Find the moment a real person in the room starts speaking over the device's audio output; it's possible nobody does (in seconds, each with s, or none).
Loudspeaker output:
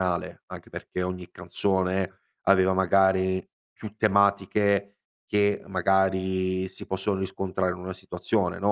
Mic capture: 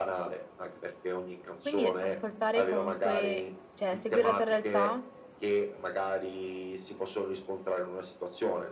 1.6 s